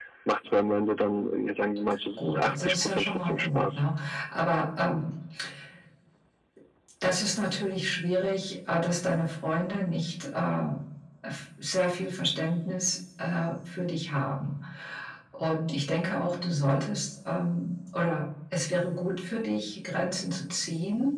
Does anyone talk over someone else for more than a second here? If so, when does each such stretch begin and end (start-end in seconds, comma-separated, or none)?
2.2-3.8